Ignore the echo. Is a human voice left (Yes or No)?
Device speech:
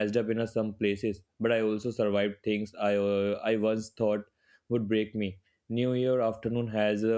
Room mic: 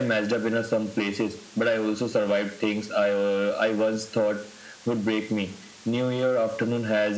No